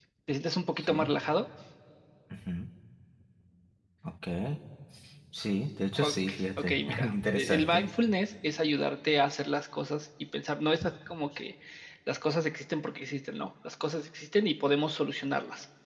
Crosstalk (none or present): present